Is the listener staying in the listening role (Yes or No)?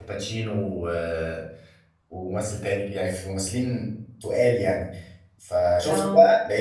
Yes